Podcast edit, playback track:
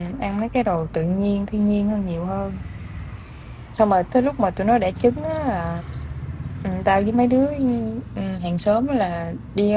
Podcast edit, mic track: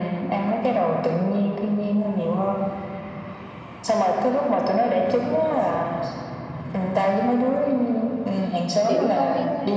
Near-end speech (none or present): present